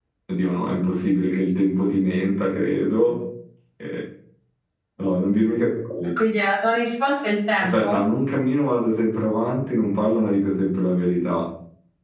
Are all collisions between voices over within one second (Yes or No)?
Yes